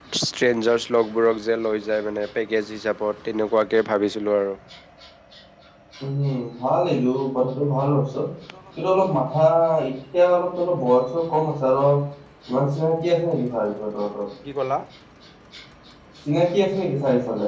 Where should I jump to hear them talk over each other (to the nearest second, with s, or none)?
none